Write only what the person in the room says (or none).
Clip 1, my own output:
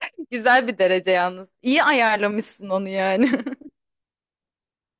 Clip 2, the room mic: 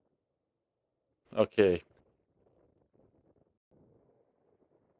Okey.